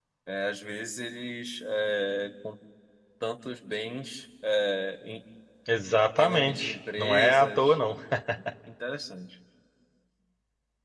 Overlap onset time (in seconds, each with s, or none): 6.2 s